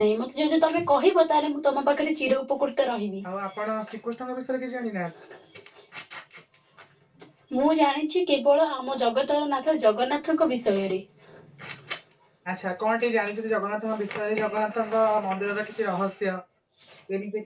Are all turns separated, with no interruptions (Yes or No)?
Yes